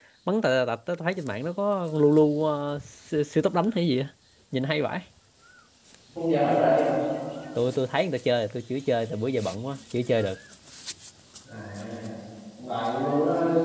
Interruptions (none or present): none